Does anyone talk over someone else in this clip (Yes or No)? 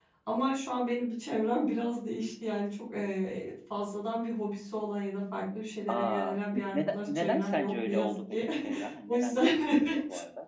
Yes